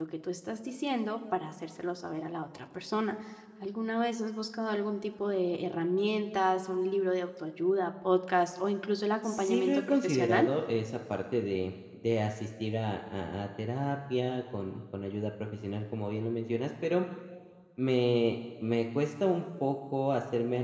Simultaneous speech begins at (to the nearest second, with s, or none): 9 s